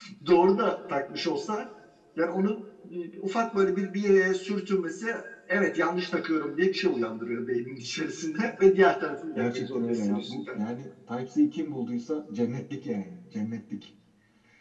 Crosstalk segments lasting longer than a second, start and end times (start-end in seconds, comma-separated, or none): 9.4-10.6